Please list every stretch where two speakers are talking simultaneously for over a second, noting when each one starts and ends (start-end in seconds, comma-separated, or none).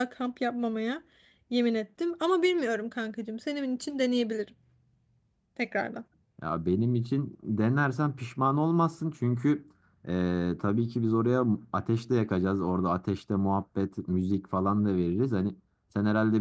none